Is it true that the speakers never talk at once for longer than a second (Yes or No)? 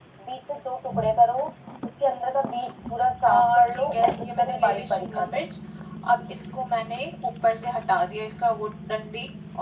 No